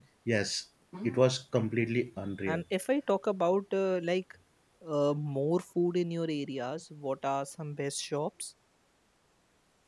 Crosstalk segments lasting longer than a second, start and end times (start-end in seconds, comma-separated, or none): none